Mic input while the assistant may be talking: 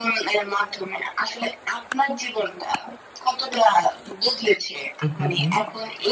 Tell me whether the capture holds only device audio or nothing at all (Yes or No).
No